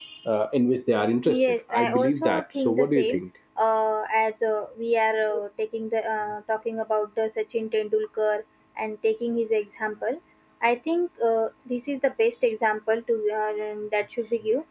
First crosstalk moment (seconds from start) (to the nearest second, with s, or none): 1 s